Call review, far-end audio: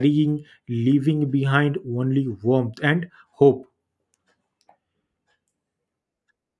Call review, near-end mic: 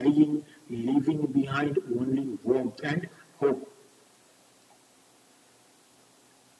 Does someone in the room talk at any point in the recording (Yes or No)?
No